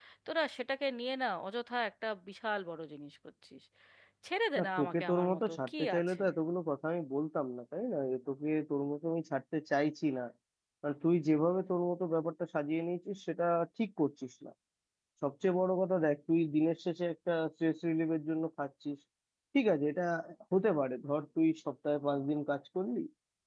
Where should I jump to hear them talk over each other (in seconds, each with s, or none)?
4.6 s